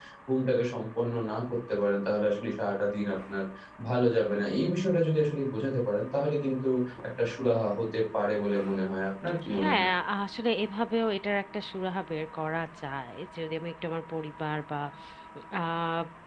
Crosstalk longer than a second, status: none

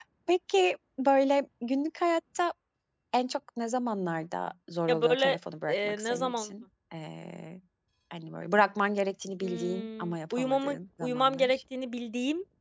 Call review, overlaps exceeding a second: present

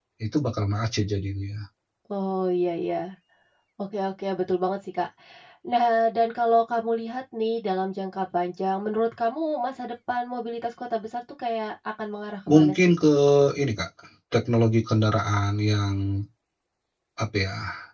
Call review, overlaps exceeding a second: none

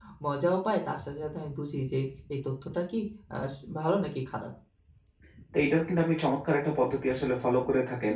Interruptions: none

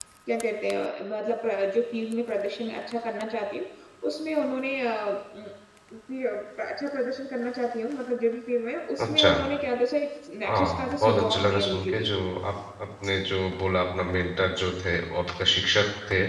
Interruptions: present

